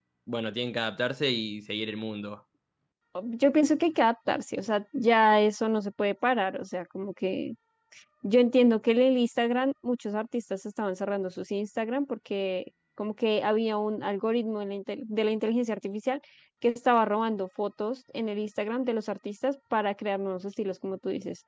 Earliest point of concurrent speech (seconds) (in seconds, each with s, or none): none